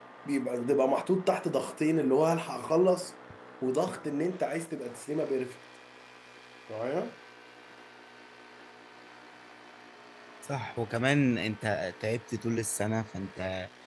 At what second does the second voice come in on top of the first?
none

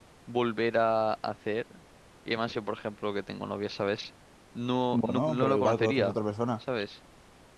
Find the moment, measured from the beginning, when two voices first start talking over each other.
4.9 s

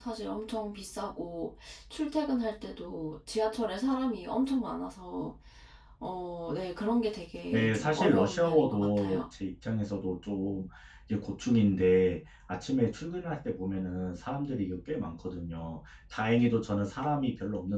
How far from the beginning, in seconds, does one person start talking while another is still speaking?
7.5 s

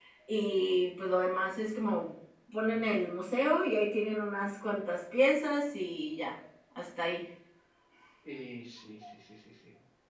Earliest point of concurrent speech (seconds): none

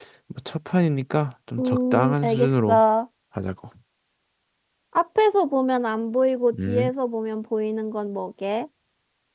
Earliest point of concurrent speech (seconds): 1.6 s

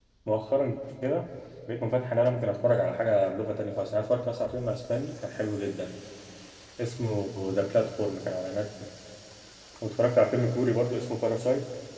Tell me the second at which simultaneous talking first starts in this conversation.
none

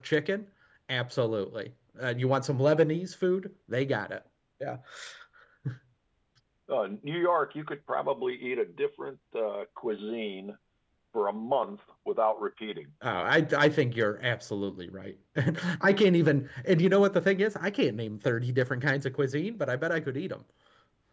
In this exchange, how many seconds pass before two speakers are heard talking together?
none

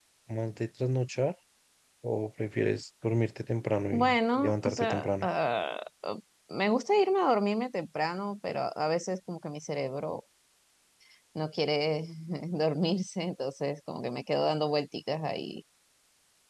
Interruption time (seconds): 3.9 s

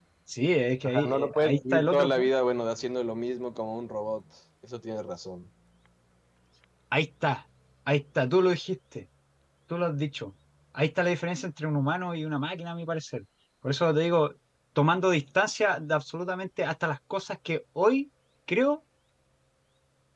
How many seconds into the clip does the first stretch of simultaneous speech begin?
0.8 s

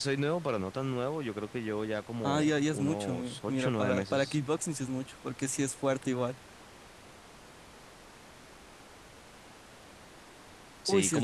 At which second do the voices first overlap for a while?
2.2 s

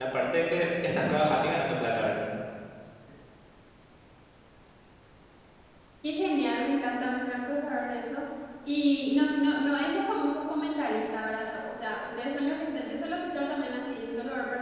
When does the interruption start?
none

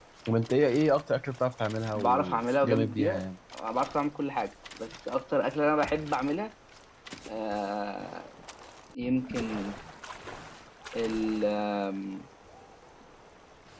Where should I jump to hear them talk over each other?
1.9 s

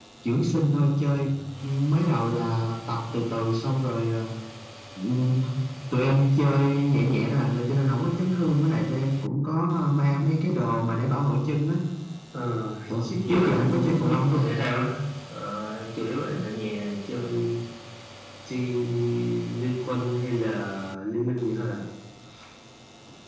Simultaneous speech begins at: 12.9 s

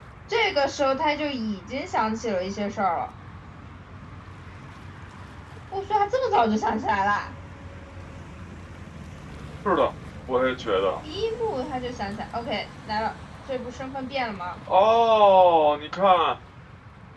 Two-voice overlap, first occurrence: none

